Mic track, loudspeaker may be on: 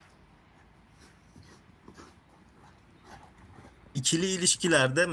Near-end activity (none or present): present